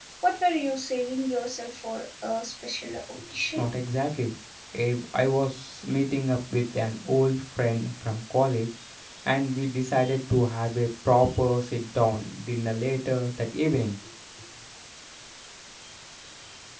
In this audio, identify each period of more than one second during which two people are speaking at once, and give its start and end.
none

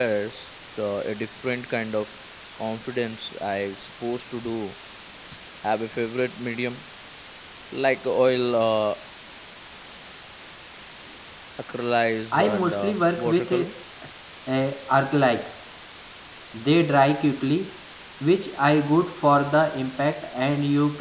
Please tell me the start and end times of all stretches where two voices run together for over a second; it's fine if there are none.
12.3-13.7

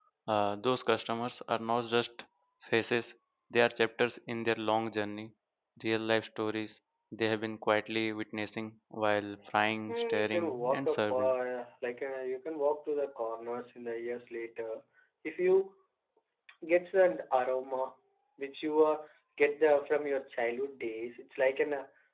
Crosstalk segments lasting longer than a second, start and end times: 9.9-11.3

